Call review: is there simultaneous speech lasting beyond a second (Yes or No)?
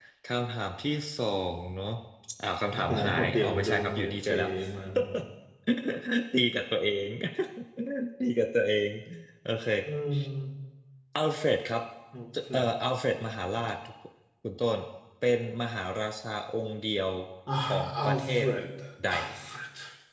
Yes